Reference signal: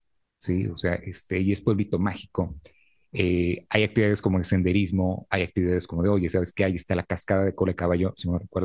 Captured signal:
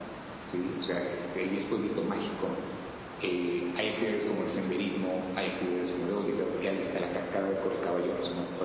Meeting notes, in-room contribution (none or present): none